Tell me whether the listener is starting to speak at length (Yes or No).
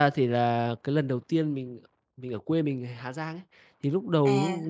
No